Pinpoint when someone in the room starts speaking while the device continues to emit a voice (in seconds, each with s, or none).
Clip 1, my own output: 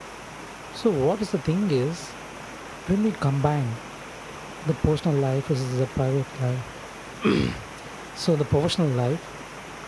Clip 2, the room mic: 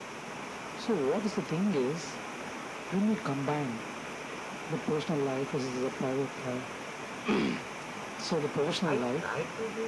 8.9 s